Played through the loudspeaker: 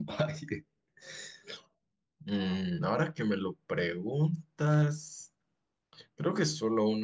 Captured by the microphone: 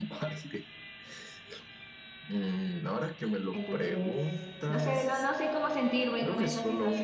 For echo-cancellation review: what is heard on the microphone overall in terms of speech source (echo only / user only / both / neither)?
both